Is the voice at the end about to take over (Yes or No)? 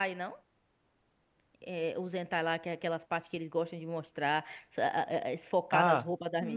Yes